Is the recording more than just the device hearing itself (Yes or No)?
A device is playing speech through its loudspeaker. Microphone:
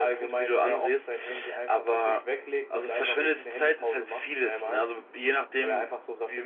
No